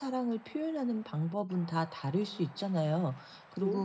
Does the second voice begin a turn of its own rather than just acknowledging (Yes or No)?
No